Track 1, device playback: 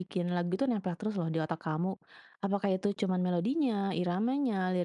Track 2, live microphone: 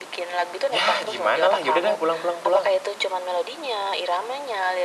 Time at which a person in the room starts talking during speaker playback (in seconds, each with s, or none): 0.7 s